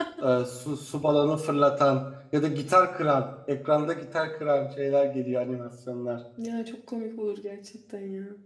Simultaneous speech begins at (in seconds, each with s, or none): none